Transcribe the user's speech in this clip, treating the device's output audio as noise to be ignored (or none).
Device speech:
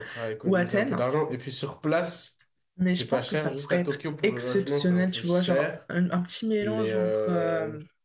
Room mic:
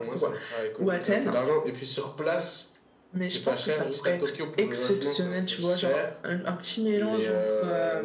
none